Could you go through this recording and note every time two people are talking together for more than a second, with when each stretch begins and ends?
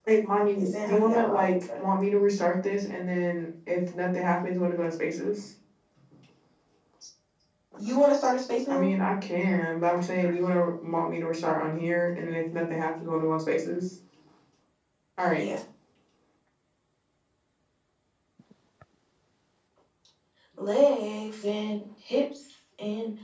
0.6-1.8

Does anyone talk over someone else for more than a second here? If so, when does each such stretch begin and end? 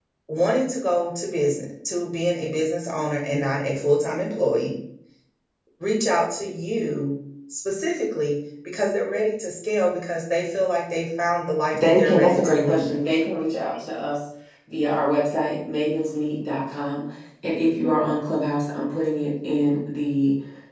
11.7-13.0

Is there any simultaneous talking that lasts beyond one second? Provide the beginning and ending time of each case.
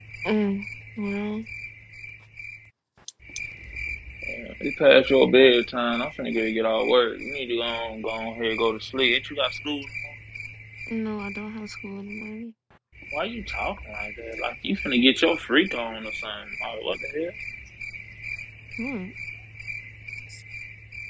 none

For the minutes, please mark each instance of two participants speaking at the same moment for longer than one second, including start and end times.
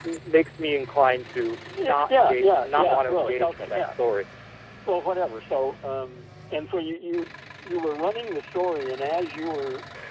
1.8-3.8

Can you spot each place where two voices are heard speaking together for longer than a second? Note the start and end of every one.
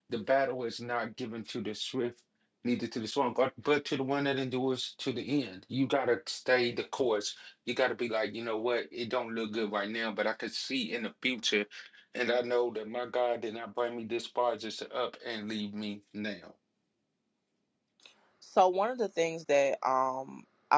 none

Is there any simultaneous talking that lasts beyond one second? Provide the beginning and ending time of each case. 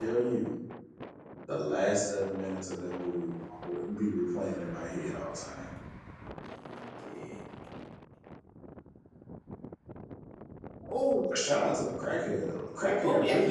none

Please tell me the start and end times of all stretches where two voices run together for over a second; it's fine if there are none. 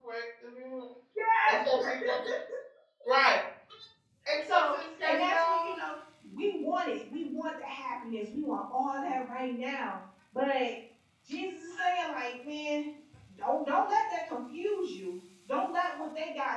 4.5-5.7

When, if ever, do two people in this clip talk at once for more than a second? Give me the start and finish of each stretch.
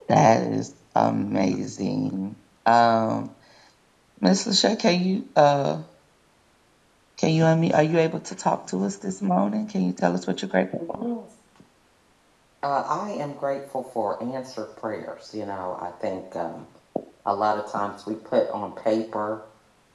none

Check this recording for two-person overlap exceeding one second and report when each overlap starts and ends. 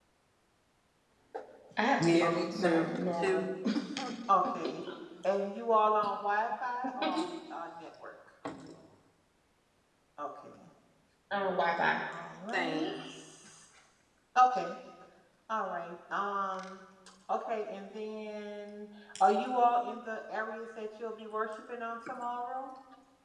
2.0-3.5

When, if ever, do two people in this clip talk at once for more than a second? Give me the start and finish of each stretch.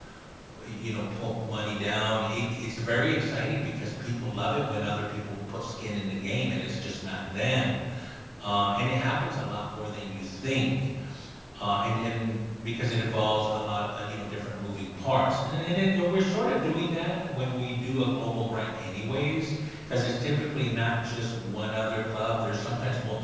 none

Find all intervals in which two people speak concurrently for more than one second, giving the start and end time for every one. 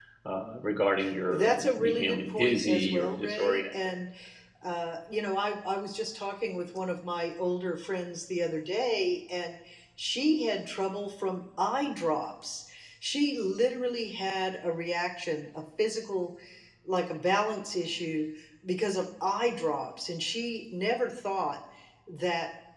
1.3-3.6

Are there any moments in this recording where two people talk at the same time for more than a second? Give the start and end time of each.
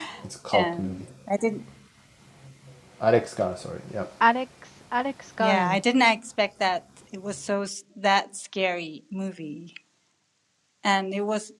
none

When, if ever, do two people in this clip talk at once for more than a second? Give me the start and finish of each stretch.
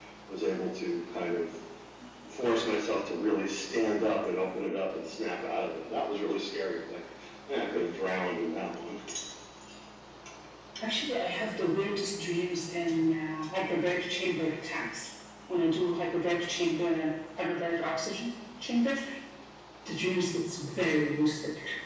none

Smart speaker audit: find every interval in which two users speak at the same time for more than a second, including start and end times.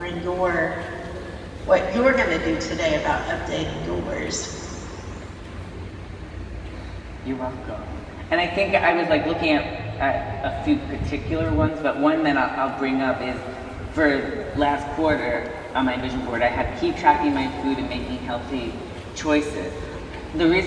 none

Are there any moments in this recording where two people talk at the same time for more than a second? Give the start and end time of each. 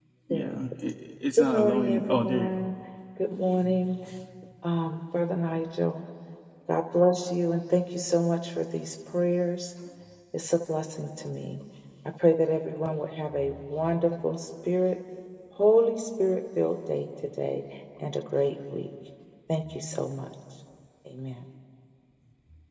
1.4-2.6

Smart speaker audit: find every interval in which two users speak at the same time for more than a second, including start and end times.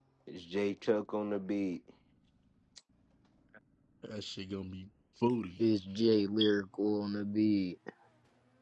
none

